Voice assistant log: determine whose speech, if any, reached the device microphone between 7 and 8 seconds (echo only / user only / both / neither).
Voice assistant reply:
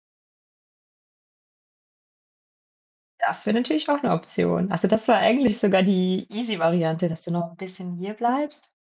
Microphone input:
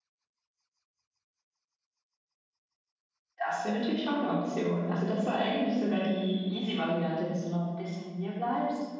echo only